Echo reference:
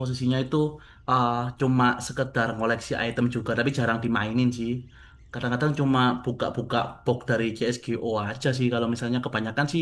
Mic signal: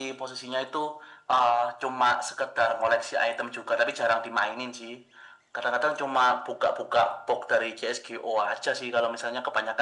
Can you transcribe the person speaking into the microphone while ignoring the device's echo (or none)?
none